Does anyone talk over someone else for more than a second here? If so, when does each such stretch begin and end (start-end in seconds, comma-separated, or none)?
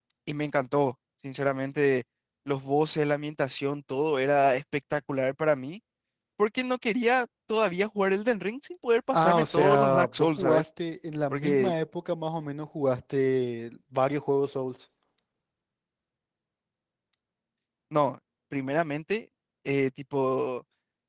9.2-10.6